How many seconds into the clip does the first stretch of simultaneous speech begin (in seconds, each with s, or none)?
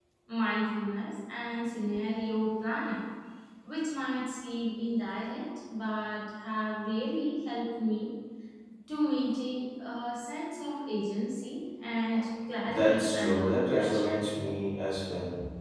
12.8 s